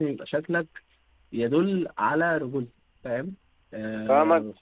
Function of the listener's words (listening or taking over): taking over